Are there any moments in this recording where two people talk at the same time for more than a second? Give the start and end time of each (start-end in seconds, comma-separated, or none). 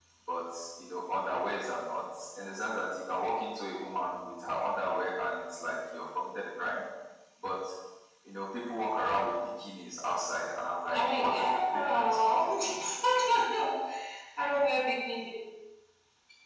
10.9-12.7